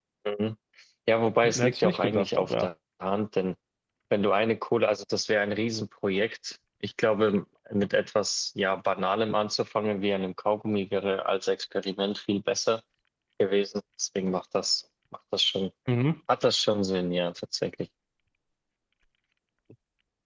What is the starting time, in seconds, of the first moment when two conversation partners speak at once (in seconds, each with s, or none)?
1.4 s